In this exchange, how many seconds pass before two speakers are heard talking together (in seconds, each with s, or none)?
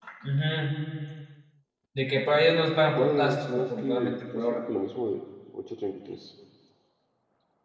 3.0 s